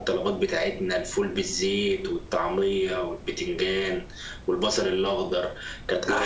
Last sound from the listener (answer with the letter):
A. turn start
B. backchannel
B